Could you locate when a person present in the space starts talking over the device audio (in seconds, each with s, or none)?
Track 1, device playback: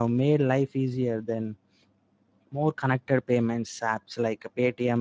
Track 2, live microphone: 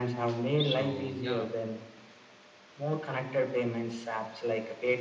0.6 s